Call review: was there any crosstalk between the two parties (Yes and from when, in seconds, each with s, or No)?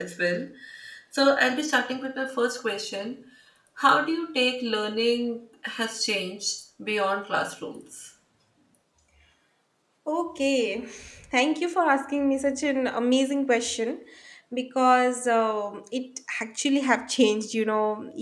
No